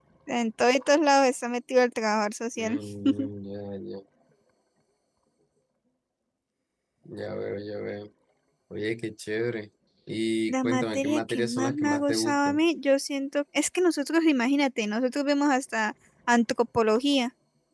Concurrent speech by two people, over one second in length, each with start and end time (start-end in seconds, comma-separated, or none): 10.5-12.6